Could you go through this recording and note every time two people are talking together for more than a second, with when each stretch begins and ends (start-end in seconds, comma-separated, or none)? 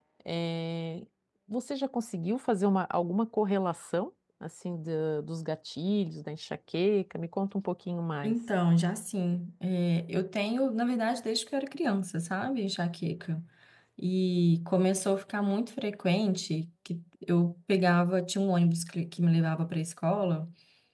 none